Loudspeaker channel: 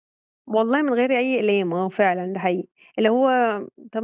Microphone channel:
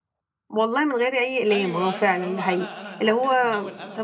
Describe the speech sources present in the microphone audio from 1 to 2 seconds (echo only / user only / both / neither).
both